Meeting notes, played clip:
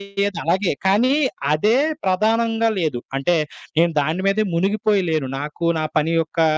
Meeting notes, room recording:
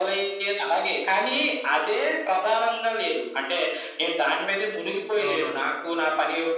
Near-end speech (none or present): present